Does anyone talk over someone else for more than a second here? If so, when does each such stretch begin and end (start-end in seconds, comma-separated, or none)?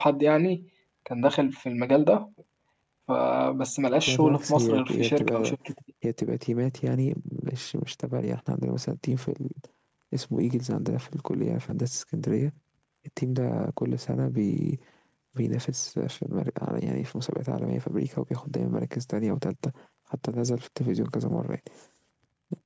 4.1-5.5